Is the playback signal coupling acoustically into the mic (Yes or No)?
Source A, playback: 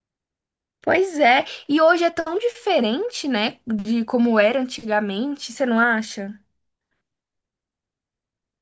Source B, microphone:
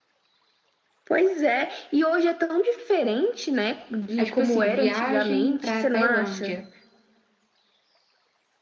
Yes